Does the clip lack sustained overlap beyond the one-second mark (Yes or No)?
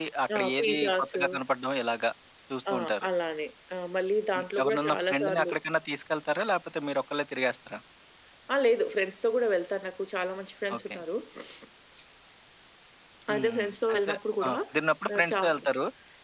No